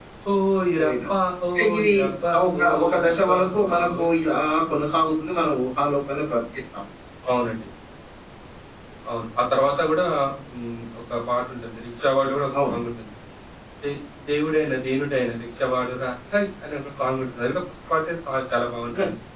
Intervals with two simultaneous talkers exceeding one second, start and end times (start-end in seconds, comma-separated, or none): 2.5-4.0